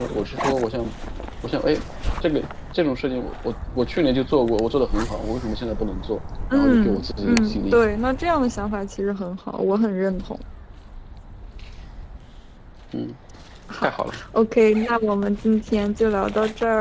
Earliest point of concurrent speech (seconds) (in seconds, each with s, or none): 6.5 s